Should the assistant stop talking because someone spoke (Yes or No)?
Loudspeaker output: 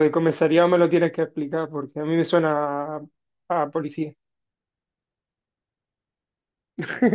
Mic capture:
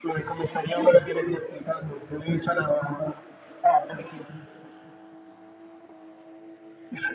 No